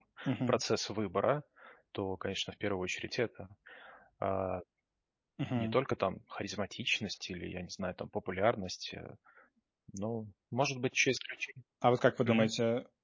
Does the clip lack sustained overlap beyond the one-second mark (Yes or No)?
Yes